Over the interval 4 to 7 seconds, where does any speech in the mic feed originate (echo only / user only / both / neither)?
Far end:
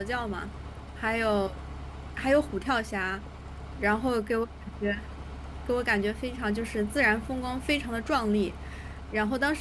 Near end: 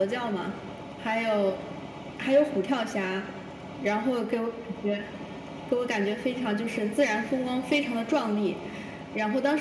echo only